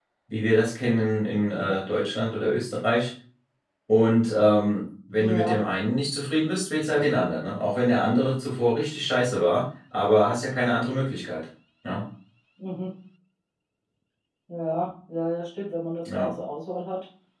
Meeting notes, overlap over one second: none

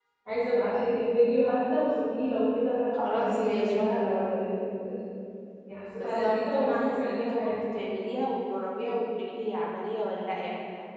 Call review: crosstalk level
present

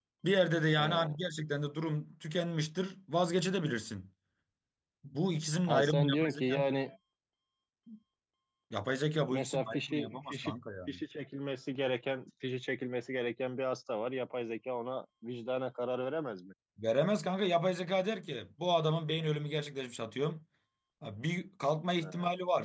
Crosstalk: present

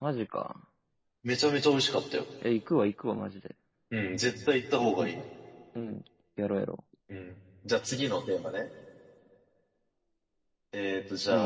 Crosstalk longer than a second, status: none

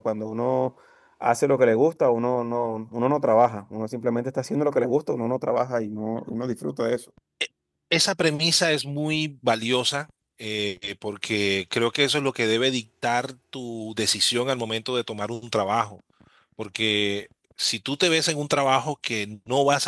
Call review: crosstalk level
none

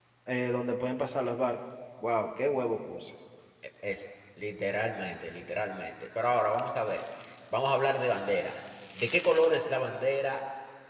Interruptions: none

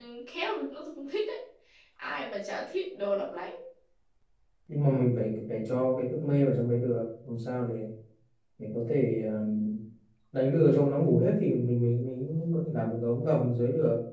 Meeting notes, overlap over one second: none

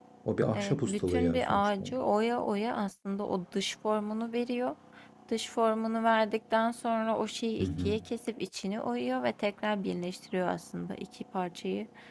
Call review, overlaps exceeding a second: present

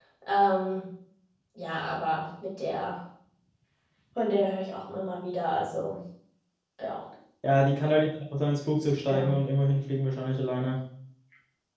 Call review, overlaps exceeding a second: none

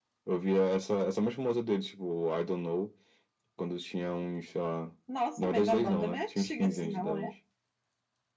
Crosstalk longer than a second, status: present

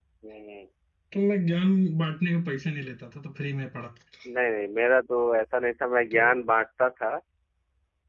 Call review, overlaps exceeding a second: none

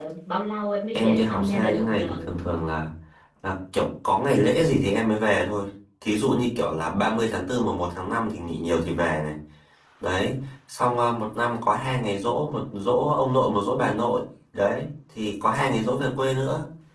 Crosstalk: present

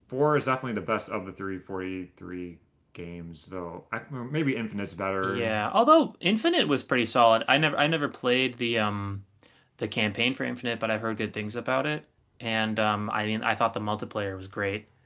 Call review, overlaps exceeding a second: none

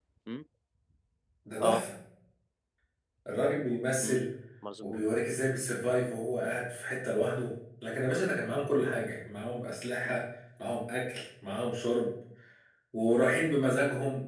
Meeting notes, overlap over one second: none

